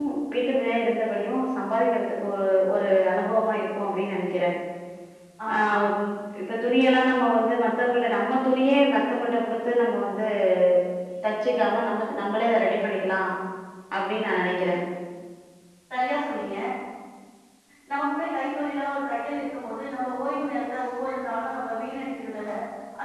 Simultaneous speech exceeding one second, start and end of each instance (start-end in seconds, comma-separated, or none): none